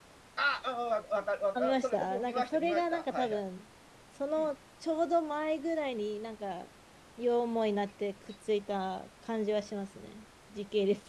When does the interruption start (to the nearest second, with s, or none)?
2 s